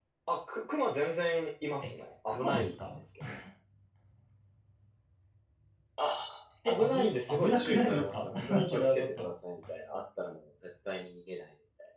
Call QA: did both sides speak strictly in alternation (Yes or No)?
No